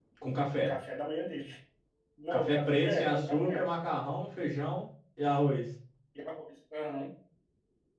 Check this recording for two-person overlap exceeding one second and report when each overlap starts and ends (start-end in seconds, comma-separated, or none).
2.3-3.6